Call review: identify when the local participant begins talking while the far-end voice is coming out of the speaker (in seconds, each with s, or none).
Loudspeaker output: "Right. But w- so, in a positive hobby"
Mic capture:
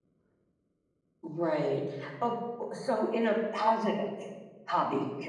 none